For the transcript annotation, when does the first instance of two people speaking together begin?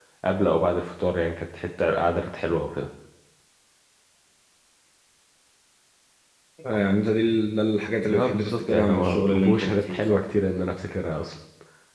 8.1 s

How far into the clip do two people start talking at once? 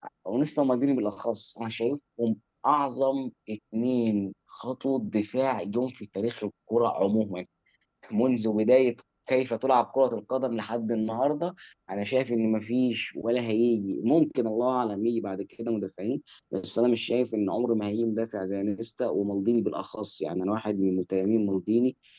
none

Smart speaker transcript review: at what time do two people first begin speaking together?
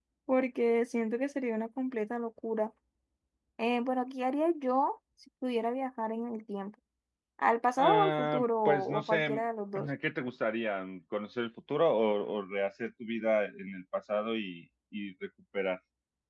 7.8 s

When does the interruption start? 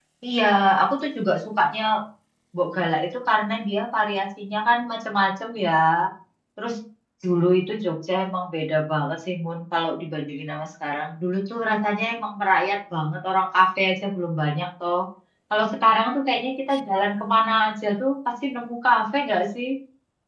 none

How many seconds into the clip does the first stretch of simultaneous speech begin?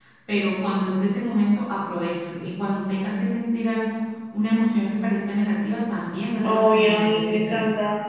6.4 s

